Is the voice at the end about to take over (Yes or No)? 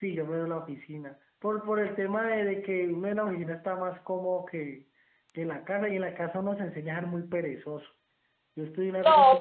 No